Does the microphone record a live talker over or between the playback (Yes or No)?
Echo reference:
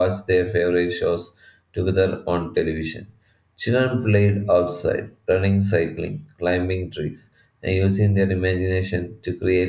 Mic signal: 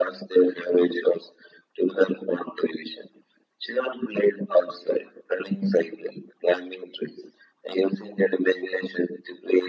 No